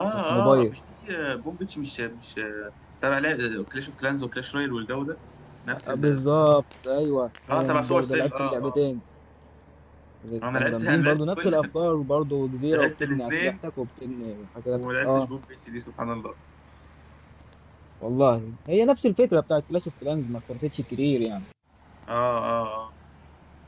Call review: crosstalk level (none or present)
present